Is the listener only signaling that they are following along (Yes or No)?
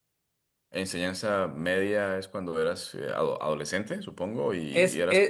No